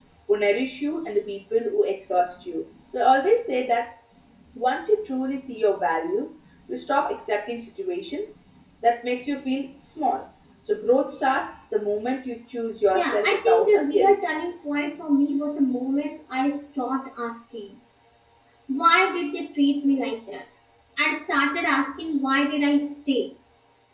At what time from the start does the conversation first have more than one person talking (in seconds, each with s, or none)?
12.9 s